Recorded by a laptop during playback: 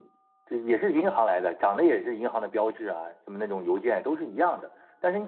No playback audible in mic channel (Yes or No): Yes